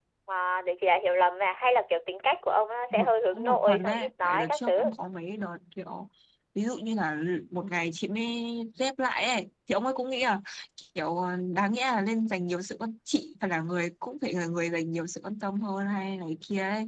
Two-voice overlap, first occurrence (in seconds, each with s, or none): 2.9 s